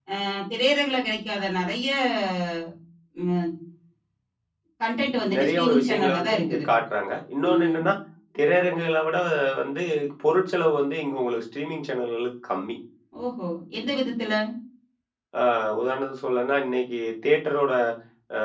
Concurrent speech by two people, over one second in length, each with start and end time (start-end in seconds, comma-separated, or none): 5.3-6.7